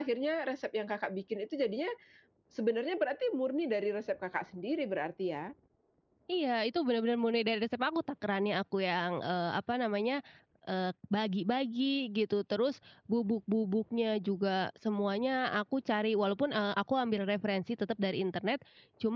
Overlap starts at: none

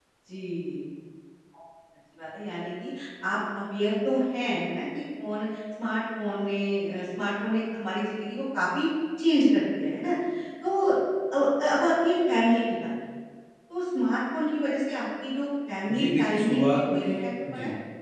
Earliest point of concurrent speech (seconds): 16 s

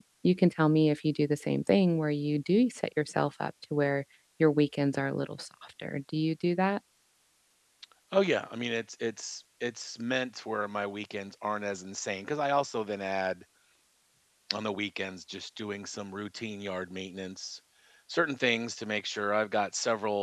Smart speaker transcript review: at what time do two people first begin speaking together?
none

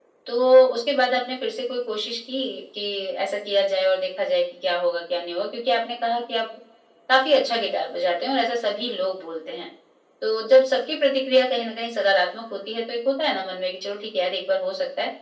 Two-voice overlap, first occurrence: none

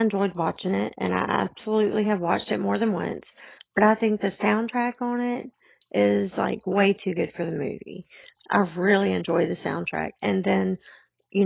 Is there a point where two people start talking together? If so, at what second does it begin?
none

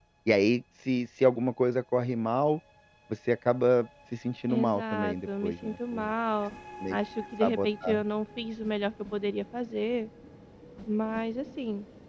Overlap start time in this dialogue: 4 s

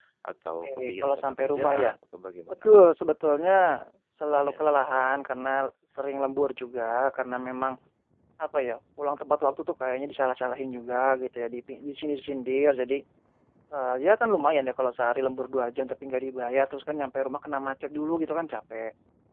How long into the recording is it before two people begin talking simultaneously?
1 s

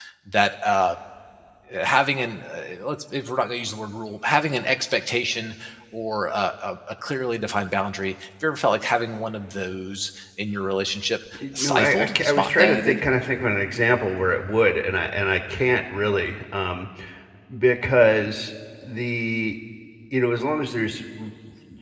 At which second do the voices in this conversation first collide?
11 s

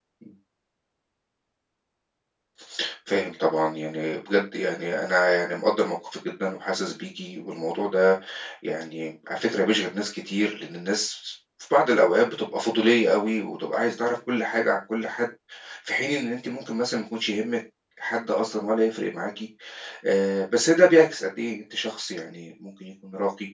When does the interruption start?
none

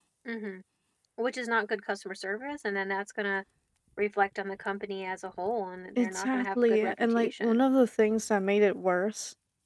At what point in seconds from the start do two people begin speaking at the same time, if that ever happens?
6 s

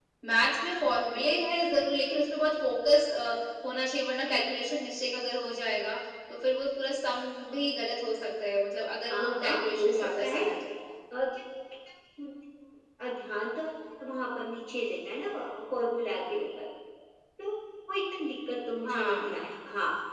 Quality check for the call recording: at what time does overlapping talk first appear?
9 s

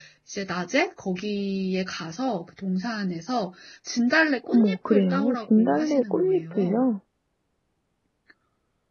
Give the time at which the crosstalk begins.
4 s

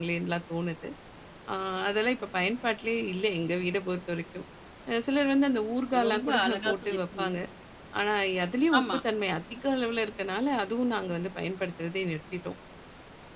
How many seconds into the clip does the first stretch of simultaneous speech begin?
6 s

